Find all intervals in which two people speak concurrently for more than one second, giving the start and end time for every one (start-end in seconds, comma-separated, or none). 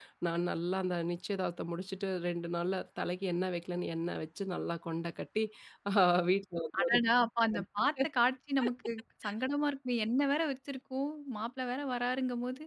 none